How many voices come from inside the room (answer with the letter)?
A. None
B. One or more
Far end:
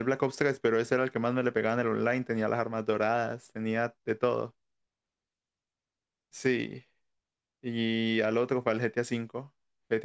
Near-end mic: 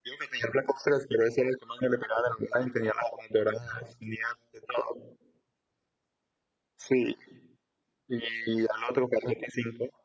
A